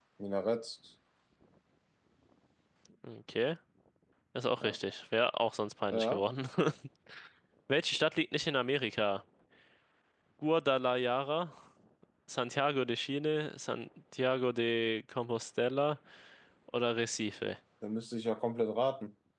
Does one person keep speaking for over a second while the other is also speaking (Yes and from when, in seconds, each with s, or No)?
No